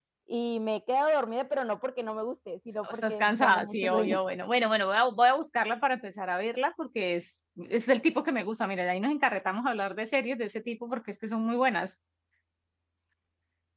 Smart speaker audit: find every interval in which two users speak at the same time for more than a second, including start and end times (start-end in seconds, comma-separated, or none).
2.9-4.2